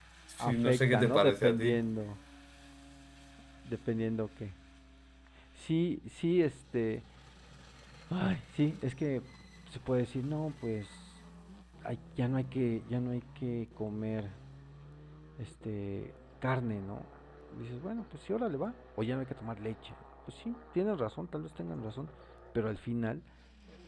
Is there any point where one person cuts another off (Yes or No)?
Yes